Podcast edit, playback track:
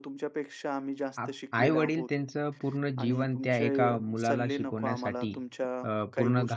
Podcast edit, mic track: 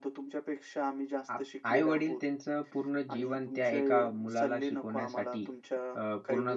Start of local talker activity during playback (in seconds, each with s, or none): none